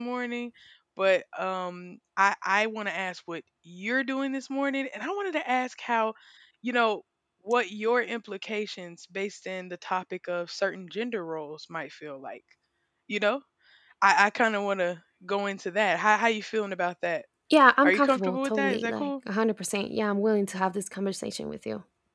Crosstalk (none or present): present